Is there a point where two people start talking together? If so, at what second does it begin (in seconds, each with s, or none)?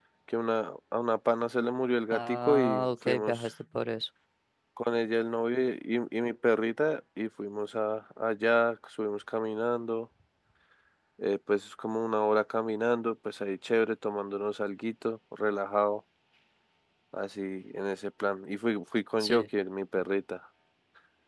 2.1 s